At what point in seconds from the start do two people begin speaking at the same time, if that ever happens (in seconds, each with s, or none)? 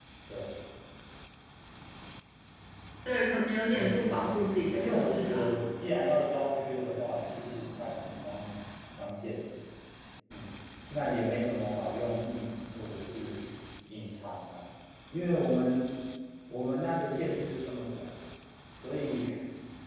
3.7 s